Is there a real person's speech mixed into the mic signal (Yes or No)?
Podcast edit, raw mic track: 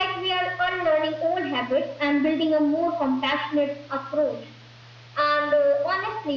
No